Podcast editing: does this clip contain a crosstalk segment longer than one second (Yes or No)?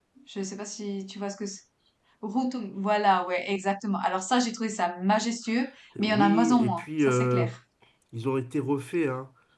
Yes